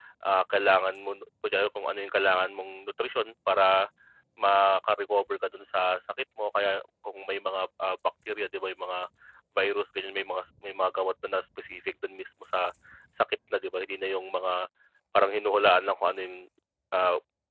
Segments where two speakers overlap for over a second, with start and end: none

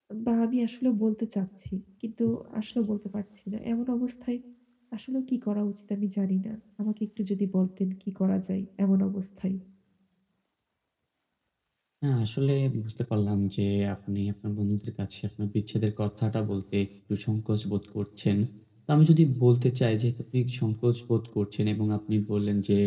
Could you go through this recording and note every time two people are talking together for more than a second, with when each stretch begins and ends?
none

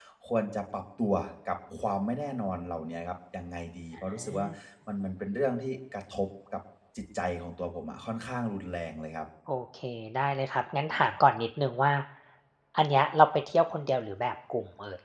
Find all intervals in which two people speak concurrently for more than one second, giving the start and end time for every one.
none

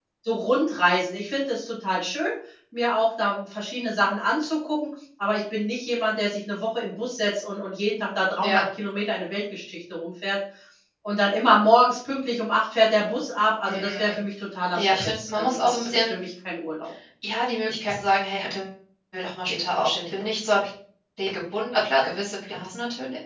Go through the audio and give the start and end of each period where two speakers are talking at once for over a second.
14.8-16.2

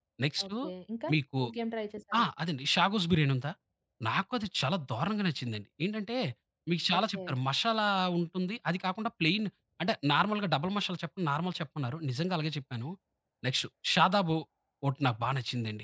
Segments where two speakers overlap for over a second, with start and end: none

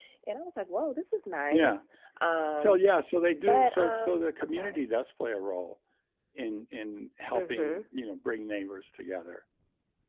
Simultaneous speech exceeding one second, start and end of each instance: 3.4-4.8

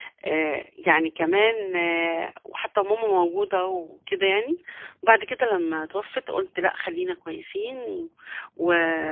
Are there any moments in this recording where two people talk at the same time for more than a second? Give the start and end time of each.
none

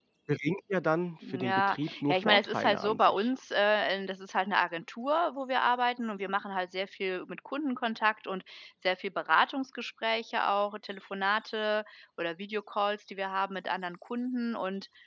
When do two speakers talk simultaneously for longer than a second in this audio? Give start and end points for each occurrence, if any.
1.3-3.3

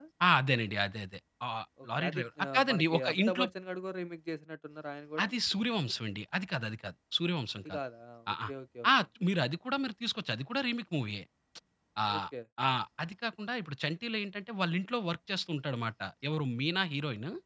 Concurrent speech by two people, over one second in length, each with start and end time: 2.0-3.5

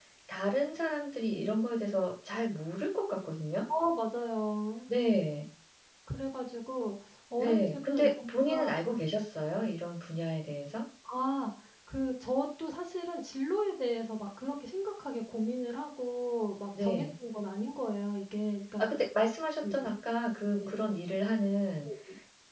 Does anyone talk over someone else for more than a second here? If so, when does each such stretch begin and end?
7.4-8.6

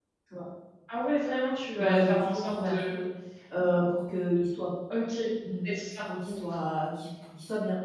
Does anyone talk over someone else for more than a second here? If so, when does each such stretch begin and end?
1.8-3.0

